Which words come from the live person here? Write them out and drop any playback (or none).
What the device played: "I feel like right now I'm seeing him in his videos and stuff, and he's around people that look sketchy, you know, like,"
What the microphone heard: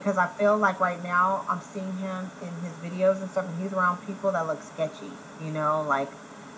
none